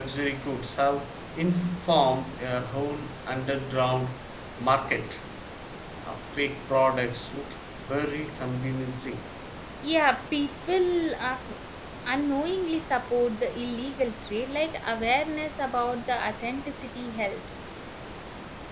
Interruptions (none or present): none